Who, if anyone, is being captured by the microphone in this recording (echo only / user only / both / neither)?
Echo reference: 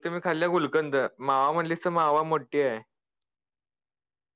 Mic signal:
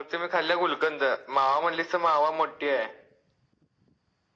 echo only